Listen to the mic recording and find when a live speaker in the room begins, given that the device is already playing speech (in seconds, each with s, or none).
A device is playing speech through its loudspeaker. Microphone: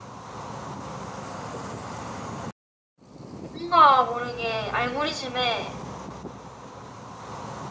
3.5 s